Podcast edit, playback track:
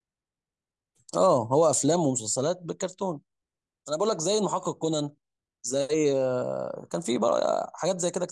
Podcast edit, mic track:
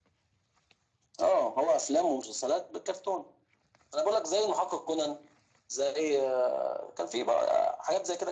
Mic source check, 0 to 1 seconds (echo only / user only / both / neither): neither